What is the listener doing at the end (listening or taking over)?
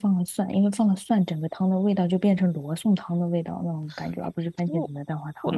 taking over